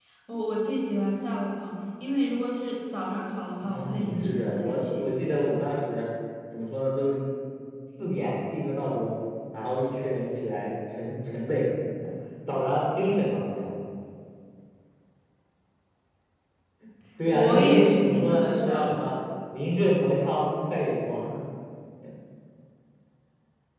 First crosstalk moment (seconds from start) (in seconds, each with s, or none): 3.6 s